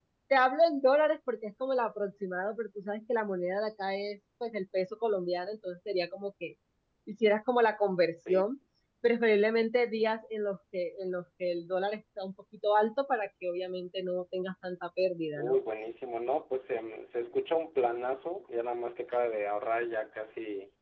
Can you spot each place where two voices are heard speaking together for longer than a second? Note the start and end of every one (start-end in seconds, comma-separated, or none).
none